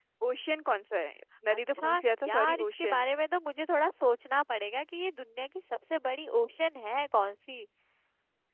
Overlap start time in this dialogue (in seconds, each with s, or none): 1.5 s